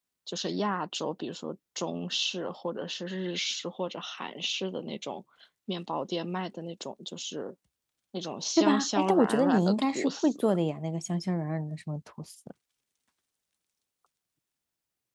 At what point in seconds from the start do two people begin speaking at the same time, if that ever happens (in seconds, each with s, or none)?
8.6 s